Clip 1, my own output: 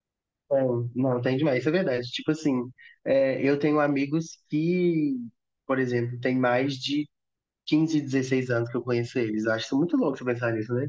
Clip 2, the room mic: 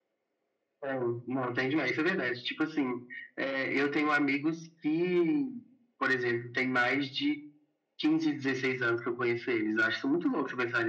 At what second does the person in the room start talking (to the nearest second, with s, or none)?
none